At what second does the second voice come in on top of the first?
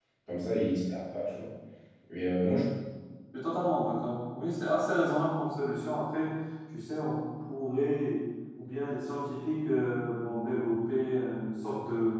none

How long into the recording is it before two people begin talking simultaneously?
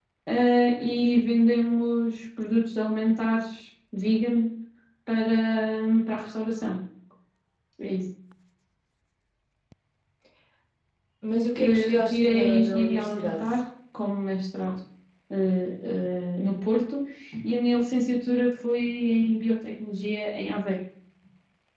11.6 s

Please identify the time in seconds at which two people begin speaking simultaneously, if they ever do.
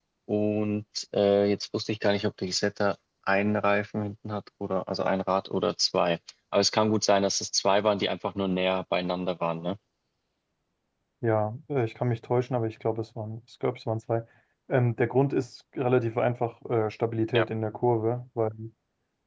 none

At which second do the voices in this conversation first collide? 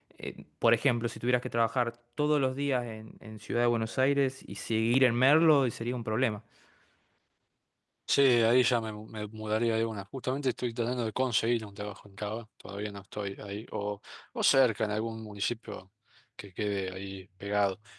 none

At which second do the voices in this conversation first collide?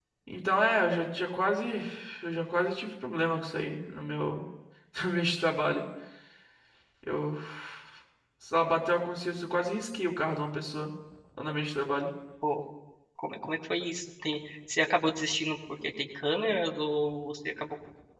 none

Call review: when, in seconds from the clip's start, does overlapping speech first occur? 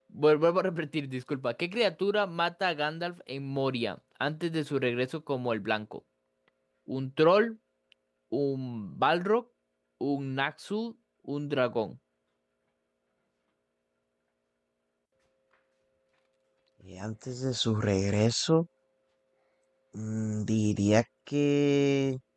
none

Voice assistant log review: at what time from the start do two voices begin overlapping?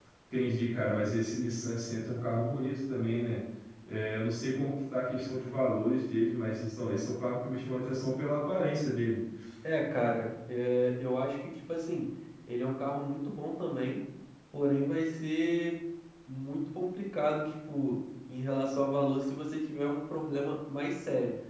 none

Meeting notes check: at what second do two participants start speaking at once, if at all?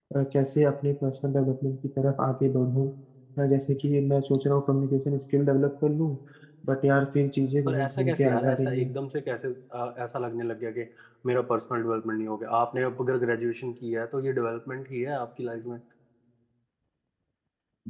7.7 s

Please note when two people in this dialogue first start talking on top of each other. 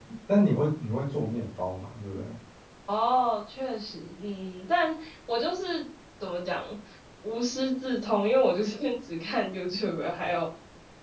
none

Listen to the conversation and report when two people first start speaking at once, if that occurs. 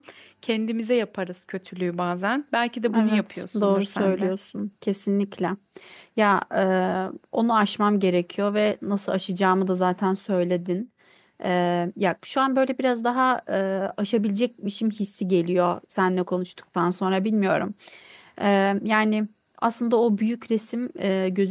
2.9 s

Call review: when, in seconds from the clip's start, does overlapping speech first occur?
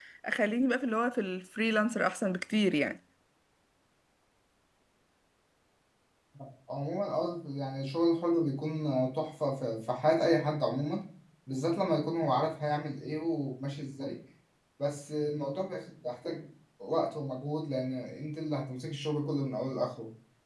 none

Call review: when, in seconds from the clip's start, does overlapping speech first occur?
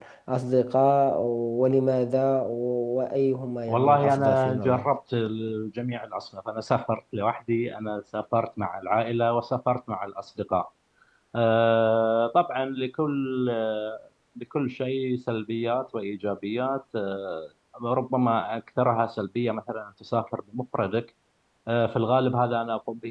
3.7 s

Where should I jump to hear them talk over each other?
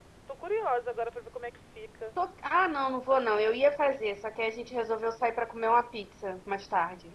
none

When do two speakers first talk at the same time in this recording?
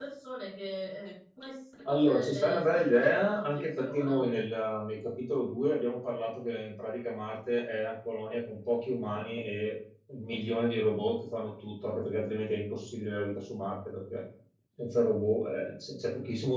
1.9 s

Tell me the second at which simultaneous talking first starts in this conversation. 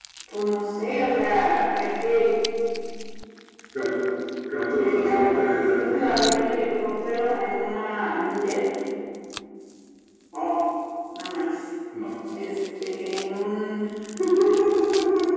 4.8 s

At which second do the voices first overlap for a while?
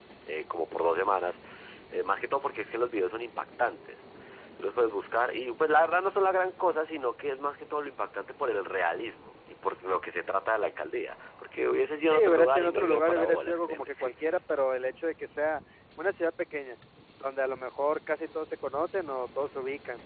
12.1 s

